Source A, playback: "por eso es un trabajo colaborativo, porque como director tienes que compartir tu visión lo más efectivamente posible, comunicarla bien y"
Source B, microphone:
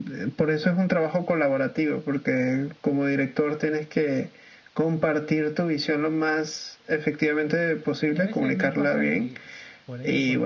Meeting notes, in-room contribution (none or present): present